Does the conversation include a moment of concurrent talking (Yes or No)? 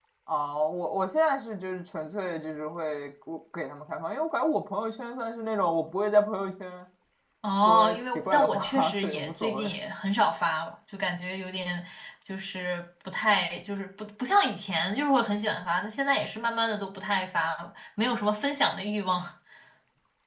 Yes